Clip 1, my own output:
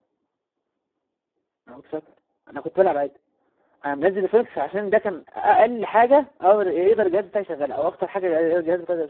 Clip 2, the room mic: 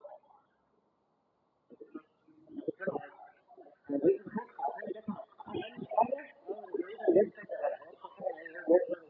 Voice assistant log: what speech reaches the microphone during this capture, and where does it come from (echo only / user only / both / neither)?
echo only